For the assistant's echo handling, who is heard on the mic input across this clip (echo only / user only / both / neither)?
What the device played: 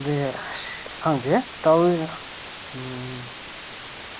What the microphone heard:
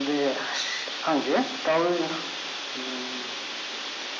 echo only